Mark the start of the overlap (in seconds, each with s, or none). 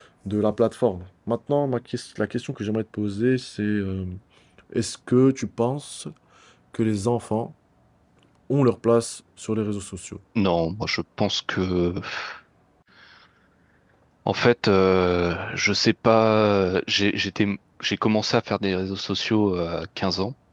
none